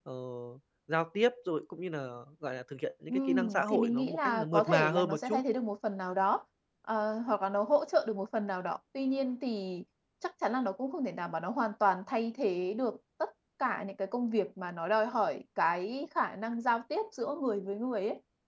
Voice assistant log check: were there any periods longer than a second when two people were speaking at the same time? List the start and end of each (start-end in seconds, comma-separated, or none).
3.1-5.4